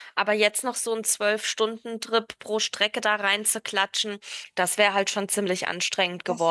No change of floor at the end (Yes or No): No